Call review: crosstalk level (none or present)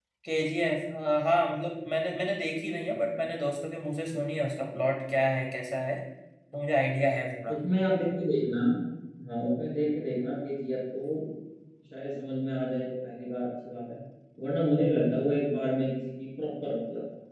none